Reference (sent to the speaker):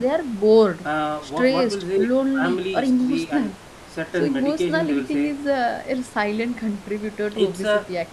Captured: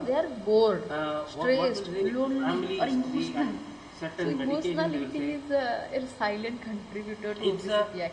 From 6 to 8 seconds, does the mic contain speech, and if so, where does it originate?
echo only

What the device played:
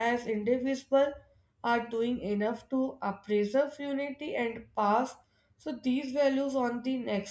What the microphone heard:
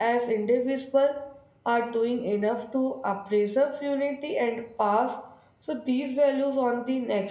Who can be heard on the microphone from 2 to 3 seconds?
echo only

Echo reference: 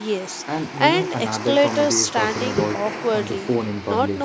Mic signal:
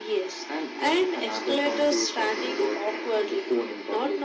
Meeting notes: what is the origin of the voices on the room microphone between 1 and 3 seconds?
echo only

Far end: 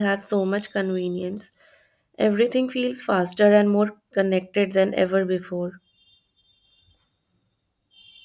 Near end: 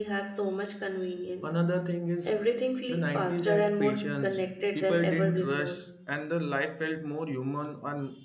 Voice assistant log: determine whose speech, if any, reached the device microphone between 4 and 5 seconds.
both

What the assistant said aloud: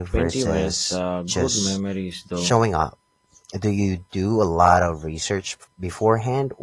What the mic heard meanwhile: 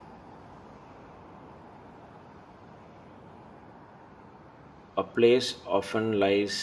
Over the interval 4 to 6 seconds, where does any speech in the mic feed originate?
user only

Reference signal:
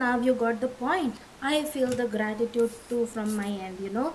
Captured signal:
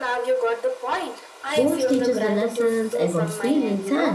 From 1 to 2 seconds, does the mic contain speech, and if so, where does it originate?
both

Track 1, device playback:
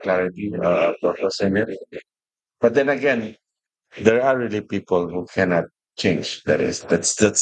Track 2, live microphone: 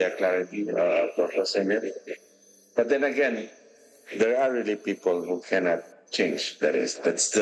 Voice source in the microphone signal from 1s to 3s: echo only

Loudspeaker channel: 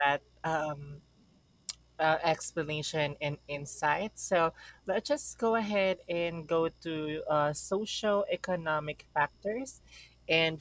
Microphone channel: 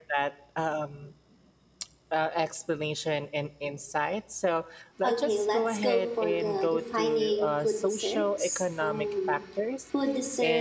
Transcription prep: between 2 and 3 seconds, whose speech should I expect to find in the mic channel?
echo only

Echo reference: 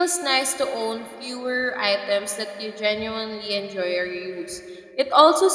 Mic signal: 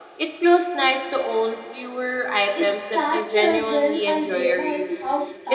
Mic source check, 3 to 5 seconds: both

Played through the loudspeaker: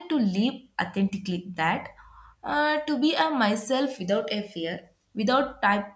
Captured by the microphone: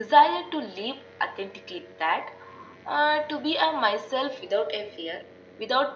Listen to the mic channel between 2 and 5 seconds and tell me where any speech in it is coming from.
echo only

